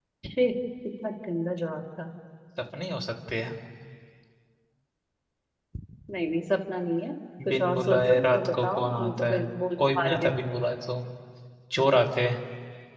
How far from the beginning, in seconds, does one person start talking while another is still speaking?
7.4 s

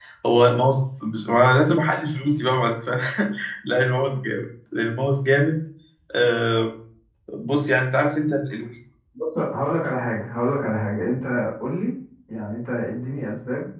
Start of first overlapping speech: none

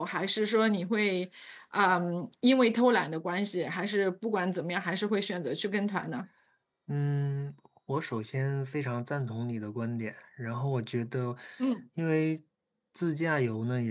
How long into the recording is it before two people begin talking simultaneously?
none

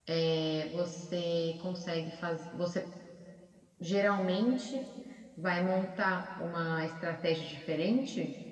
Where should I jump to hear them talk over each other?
none

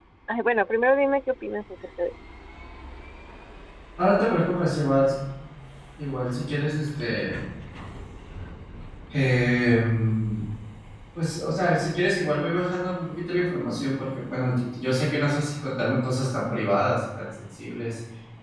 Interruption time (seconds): none

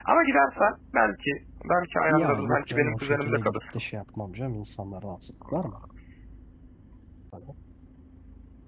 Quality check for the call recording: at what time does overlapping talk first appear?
2.1 s

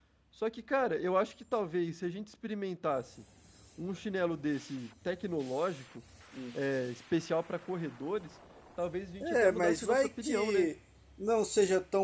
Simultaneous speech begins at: 9.2 s

